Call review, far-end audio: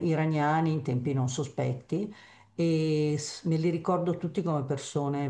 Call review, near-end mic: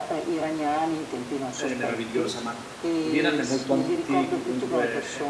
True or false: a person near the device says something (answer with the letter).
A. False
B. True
B